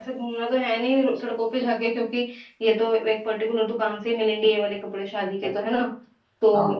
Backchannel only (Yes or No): Yes